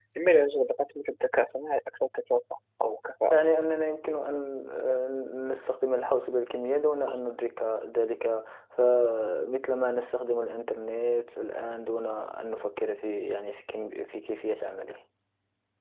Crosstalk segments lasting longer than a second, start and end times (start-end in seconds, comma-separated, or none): none